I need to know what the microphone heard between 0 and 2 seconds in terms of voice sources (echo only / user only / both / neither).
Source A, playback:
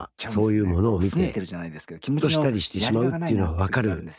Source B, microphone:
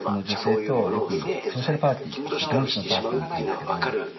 both